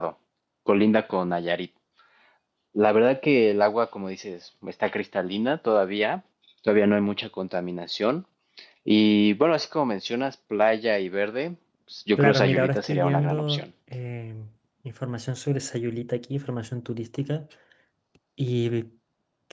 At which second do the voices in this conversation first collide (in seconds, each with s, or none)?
12.2 s